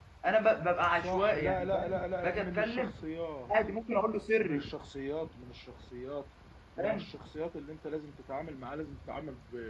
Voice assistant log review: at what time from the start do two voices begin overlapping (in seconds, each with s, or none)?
0.9 s